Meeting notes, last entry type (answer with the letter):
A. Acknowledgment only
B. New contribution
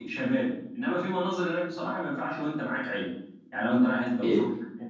A